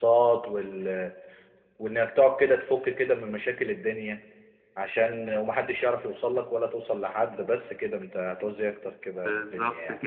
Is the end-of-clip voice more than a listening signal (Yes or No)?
Yes